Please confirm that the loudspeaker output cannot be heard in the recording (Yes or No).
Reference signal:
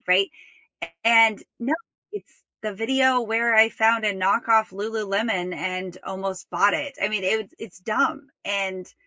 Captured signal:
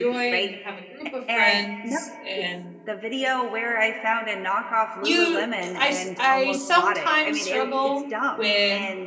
No